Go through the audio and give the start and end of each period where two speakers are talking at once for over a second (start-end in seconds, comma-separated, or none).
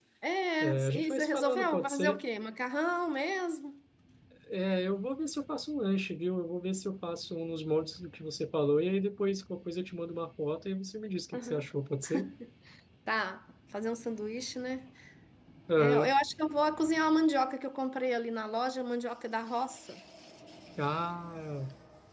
0.6-2.2